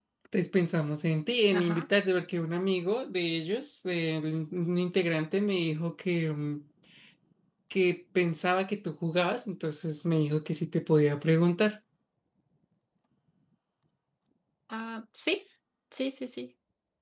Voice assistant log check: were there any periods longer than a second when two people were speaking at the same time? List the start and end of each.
none

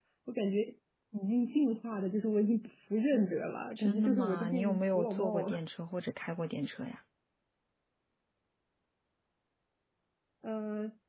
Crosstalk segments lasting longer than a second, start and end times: 3.8-5.6

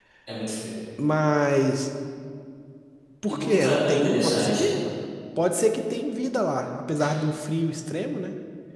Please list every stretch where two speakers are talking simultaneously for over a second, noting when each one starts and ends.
3.3-4.6

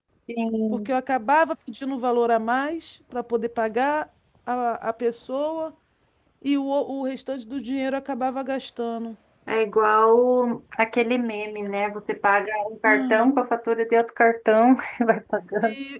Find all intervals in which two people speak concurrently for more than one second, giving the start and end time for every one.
none

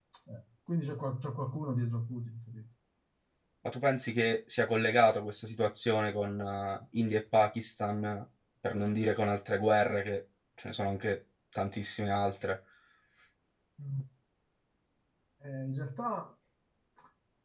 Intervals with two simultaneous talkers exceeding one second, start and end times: none

